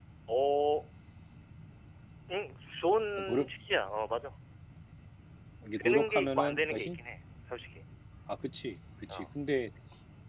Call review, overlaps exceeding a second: present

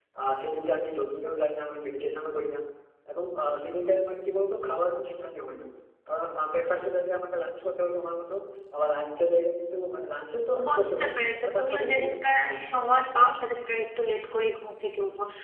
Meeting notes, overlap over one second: present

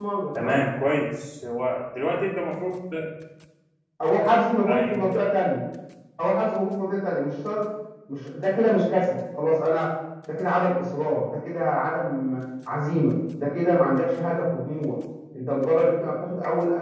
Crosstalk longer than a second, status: none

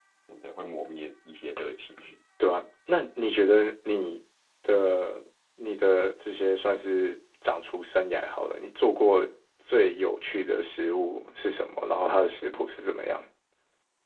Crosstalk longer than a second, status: none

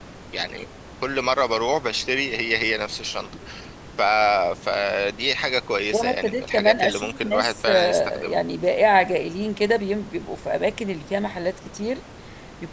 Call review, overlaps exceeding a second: present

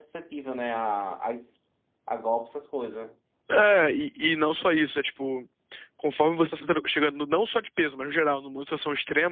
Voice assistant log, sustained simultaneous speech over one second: none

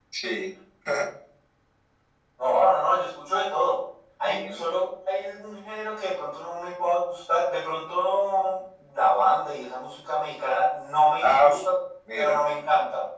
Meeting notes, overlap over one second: none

